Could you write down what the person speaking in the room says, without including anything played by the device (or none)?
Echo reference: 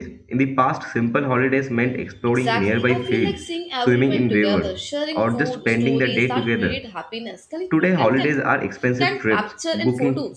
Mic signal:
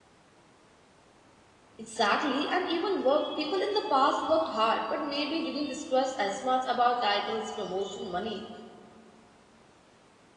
Exactly, and even work, people in the past worked hard but maybe didn't stress as much about titles, promotion, money.